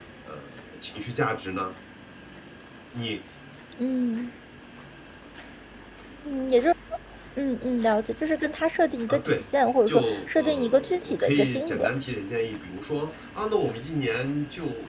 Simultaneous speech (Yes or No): Yes